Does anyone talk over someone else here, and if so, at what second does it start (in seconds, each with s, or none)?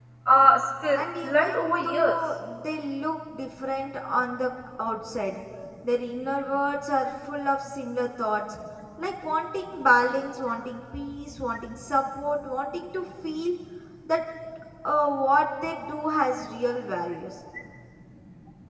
0.9 s